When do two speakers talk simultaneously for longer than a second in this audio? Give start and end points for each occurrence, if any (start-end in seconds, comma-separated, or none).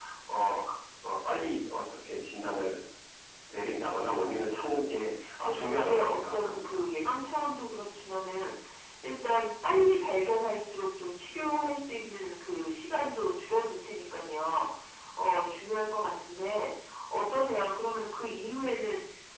5.4-6.8